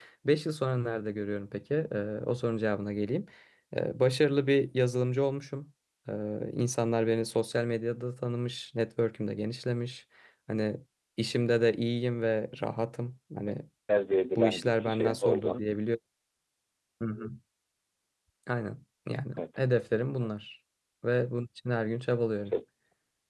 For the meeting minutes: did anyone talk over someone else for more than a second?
Yes, from 14.3 s

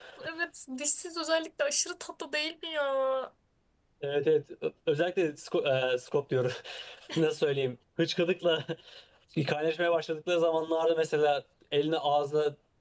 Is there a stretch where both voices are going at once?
No

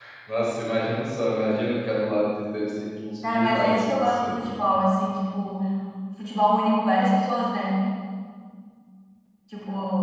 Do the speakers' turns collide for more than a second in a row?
Yes, from 3.2 s

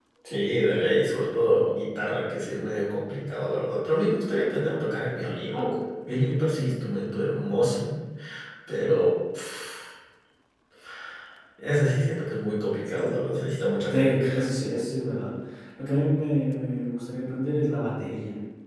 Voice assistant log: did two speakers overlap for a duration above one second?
No

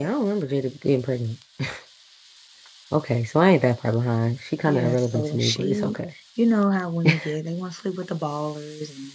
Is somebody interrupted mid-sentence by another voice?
Yes, from 4.7 s

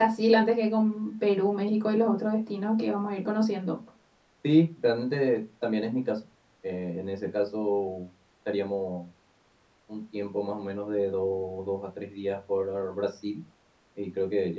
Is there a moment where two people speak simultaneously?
No

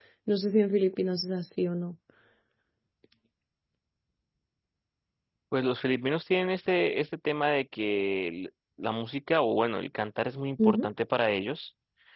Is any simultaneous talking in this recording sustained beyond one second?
No

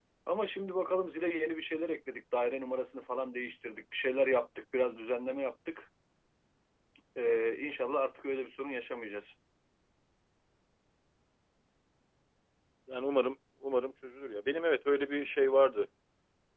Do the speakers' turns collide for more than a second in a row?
No

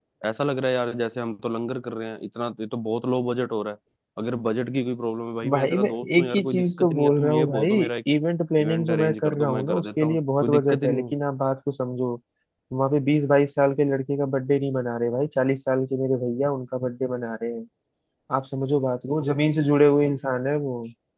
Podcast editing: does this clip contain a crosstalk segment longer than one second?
Yes, from 5.5 s

